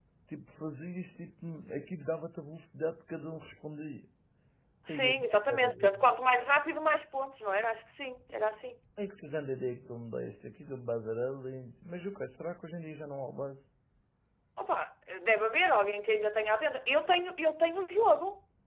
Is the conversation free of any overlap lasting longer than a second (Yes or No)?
Yes